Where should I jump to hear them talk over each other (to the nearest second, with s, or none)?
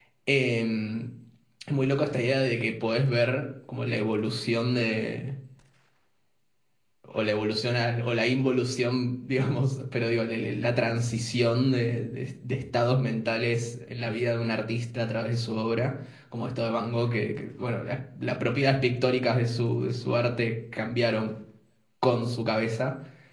none